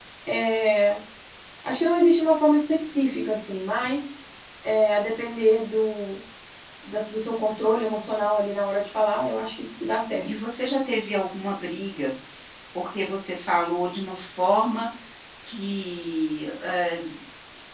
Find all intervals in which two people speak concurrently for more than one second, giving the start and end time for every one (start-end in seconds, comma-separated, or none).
none